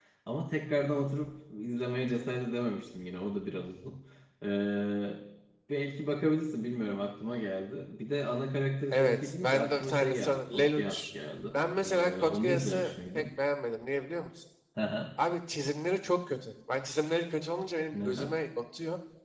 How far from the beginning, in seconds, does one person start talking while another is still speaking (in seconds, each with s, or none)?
8.9 s